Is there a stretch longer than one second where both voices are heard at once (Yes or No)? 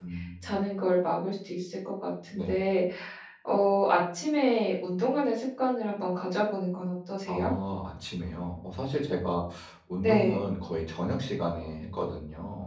No